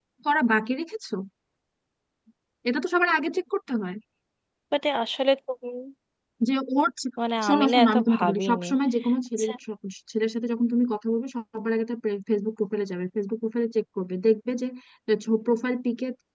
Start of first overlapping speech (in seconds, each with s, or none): 7.2 s